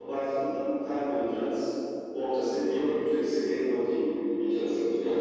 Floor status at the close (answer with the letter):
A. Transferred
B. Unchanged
A